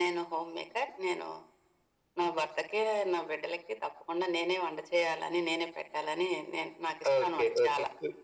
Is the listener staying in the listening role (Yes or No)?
No